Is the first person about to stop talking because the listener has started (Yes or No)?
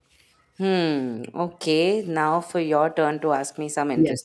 Yes